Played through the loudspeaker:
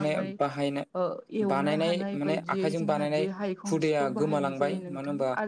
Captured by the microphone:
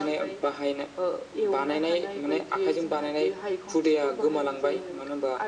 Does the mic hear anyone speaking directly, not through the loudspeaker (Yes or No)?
No